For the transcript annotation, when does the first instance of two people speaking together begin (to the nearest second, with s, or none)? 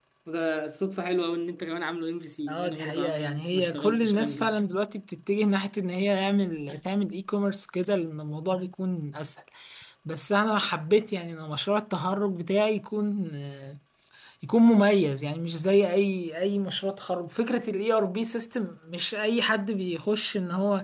2 s